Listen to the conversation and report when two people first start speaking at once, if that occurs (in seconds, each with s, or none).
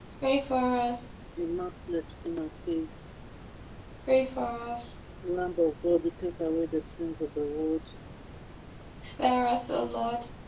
none